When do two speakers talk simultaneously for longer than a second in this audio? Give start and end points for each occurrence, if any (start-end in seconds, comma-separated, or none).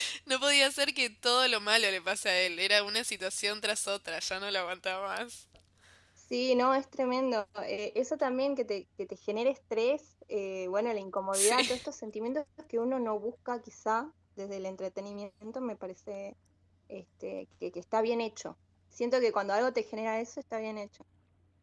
none